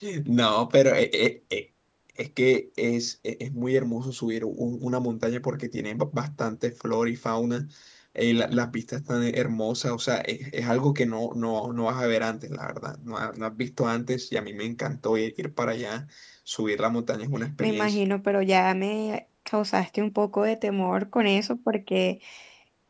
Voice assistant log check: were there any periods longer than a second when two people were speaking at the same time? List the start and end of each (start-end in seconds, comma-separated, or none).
none